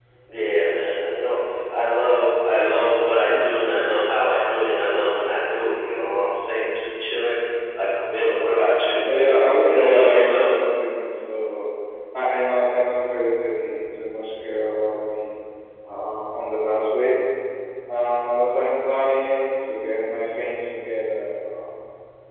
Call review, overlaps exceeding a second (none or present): present